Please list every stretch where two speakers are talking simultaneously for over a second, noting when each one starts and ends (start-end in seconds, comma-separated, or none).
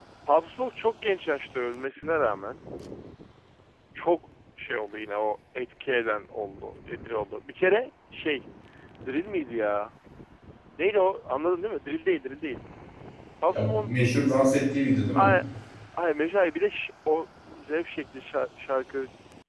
none